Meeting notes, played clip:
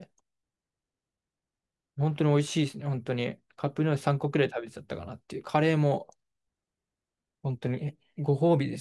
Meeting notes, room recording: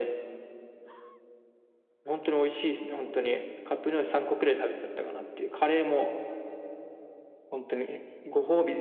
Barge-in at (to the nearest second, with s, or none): none